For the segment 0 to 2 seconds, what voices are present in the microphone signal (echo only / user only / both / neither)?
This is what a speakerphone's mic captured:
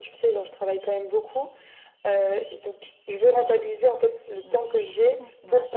echo only